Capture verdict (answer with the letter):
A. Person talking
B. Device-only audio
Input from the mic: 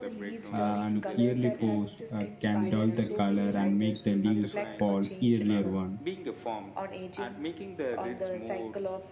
A